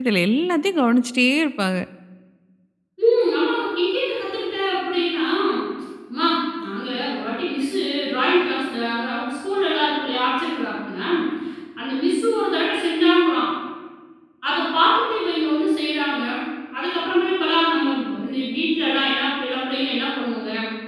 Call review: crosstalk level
none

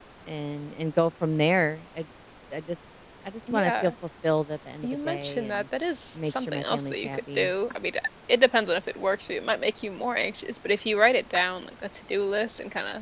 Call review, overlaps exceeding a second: present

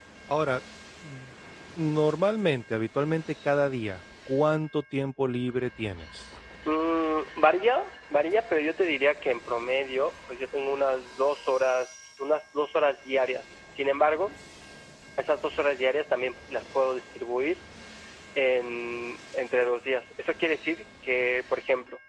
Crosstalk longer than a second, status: none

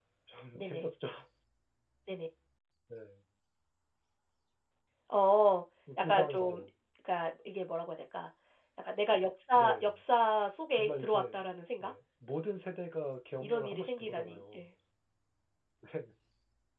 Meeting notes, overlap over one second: present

